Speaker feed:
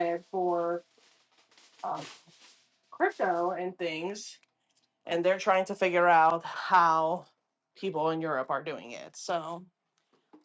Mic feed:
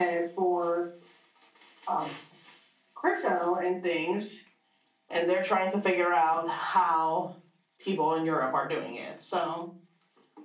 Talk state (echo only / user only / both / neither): echo only